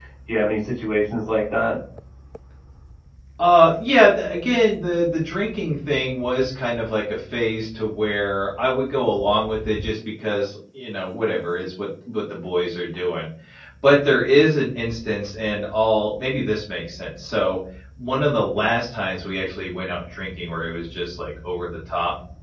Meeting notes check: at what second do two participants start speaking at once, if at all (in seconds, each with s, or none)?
none